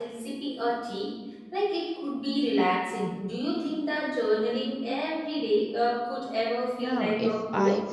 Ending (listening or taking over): taking over